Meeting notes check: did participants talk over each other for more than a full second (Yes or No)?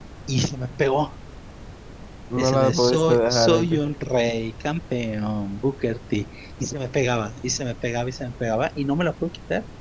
Yes